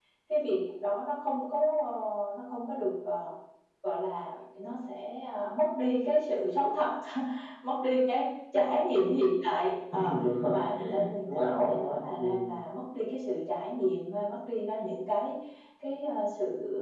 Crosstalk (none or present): present